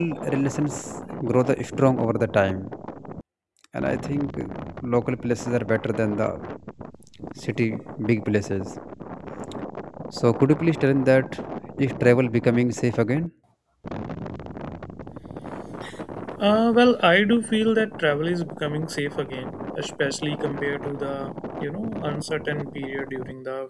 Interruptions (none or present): none